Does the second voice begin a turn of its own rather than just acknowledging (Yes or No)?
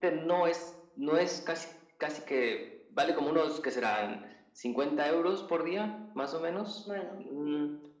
No